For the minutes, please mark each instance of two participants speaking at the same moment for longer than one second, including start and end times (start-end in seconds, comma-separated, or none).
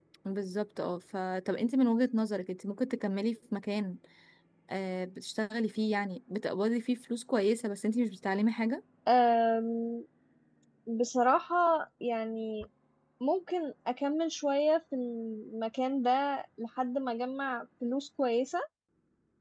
none